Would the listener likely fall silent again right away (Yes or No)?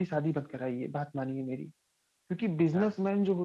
Yes